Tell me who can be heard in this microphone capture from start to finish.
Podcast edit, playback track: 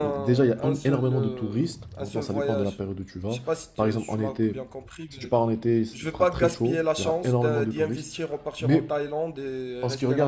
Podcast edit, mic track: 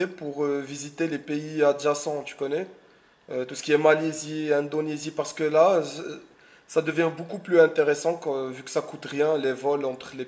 user only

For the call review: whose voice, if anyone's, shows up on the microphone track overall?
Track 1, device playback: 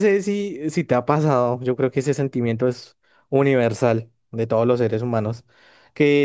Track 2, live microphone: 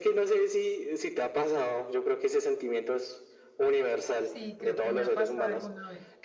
both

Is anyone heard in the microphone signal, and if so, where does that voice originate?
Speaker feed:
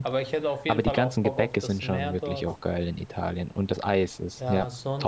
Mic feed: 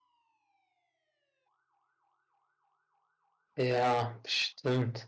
user only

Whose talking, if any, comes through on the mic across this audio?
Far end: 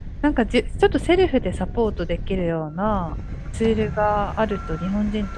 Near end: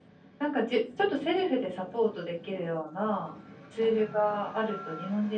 echo only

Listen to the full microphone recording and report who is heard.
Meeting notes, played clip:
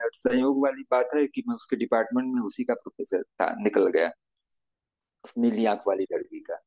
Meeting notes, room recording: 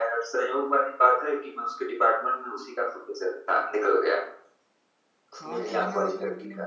both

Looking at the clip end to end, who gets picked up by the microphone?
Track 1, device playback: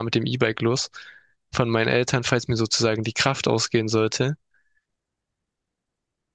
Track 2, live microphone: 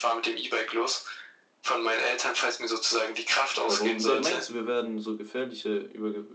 both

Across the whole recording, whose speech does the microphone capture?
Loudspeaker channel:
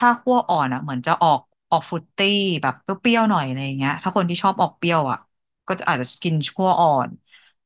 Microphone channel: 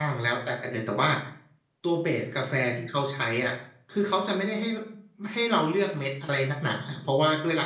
user only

